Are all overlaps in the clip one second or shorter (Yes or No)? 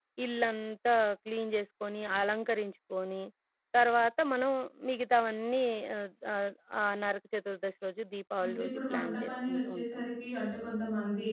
No